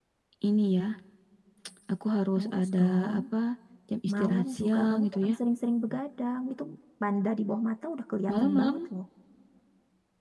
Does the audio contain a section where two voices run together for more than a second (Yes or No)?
Yes